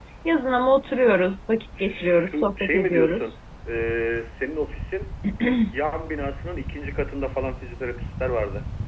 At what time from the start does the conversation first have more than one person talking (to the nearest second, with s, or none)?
2 s